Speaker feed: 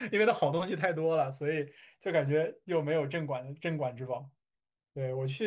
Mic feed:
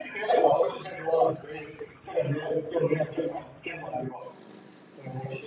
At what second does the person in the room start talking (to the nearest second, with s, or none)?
0 s